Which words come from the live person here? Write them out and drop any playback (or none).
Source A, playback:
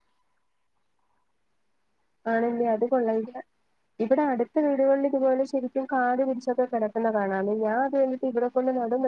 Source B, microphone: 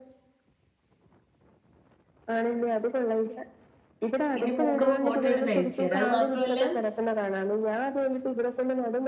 ഇനി പൂക്കുമ്പോ ഫോട്ടോ എടുത്ത് അയച്ചതരാ അത് ത്രവുല്ല